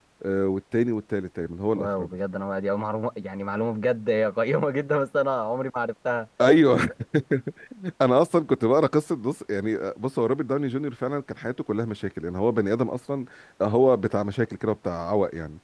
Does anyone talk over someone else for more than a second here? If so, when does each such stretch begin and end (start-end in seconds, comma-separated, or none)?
none